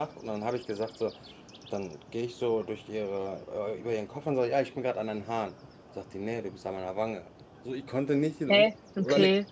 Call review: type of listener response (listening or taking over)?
listening